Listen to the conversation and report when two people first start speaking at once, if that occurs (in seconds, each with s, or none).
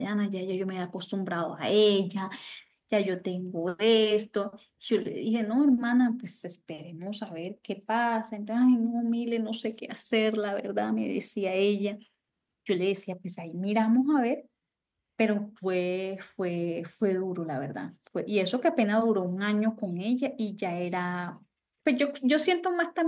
none